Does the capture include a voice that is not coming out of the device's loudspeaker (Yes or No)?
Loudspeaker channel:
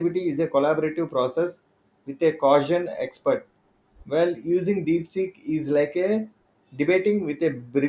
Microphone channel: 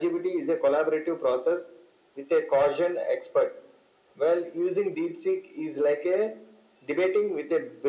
No